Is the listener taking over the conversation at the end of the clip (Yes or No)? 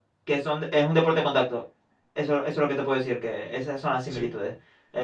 No